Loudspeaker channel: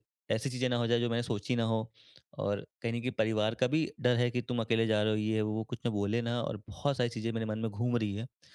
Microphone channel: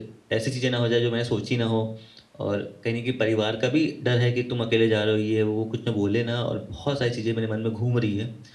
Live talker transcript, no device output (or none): none